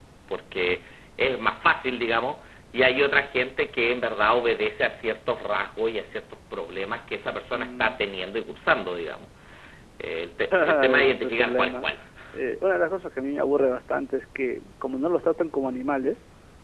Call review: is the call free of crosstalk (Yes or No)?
No